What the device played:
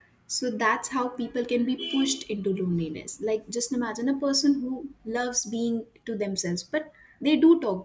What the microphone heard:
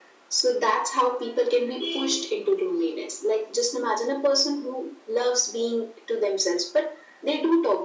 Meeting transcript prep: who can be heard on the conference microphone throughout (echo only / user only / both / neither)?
echo only